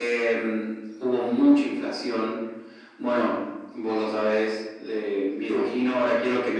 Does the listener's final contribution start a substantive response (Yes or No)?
No